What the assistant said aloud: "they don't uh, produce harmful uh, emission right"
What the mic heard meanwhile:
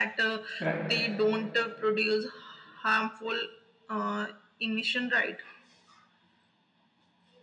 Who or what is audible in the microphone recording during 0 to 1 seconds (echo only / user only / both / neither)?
both